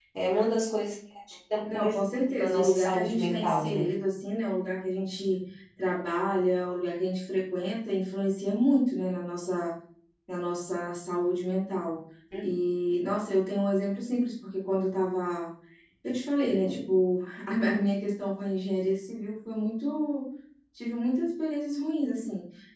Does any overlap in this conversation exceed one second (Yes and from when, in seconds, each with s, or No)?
Yes, from 1.7 s